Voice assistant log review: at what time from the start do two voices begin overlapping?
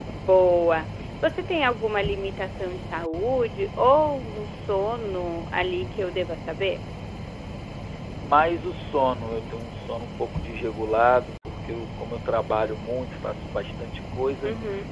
none

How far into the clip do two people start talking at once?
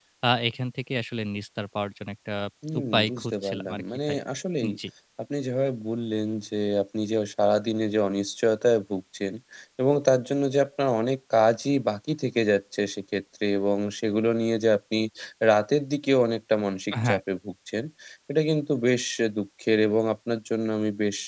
2.8 s

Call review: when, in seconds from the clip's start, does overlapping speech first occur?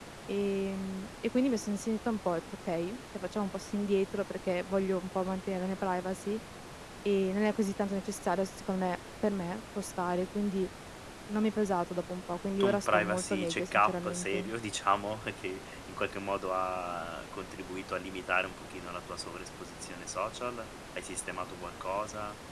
12.6 s

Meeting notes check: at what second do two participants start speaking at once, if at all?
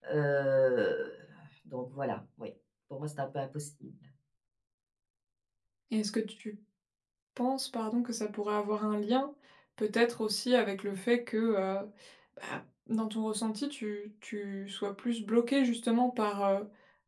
none

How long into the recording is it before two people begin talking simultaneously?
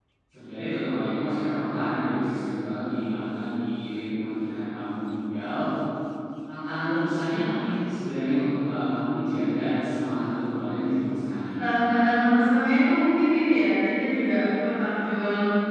none

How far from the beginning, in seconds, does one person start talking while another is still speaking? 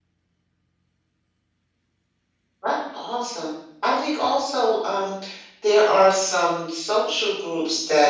none

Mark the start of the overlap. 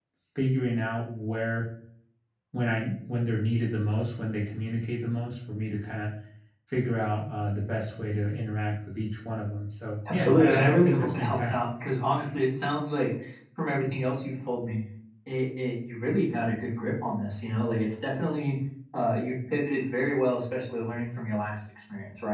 10.1 s

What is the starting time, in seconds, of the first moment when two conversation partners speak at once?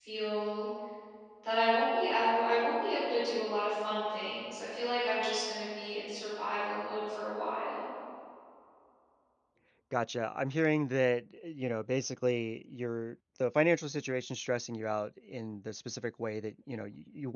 none

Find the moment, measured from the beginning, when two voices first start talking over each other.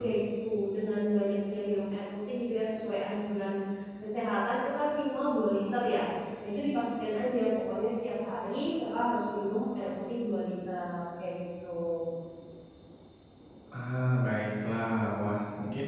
none

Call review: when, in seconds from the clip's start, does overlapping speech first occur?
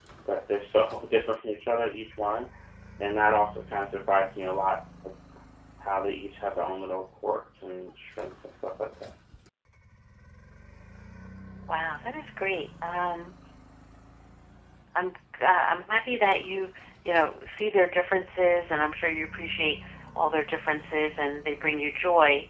none

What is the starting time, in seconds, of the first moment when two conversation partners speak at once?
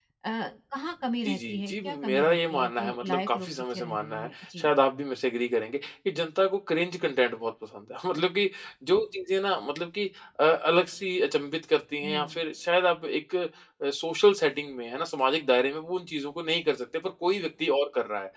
1.2 s

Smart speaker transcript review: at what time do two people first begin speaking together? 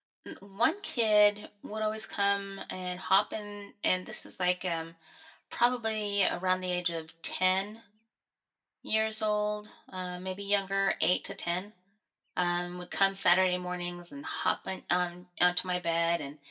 none

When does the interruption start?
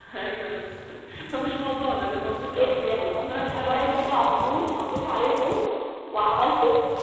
2.5 s

